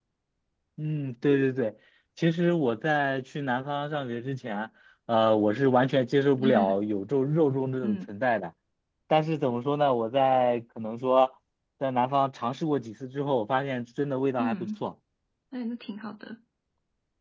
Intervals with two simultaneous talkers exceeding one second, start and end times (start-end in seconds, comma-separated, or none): none